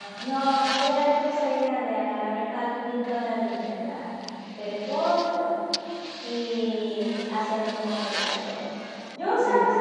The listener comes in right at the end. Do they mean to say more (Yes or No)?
No